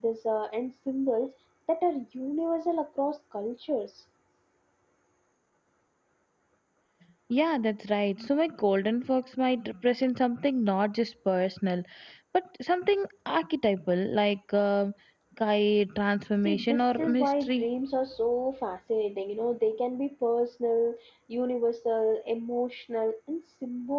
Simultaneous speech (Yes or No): Yes